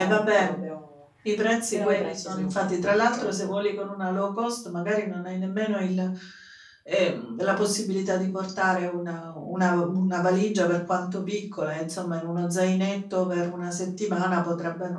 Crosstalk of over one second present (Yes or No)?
Yes